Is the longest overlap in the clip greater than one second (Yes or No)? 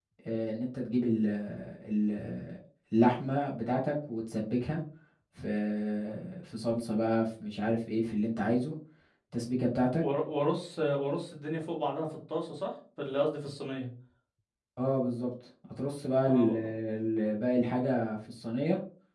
No